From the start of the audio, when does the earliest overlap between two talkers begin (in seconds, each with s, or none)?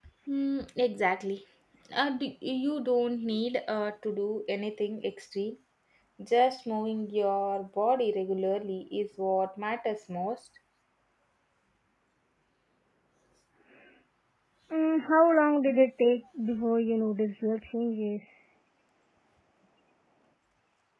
none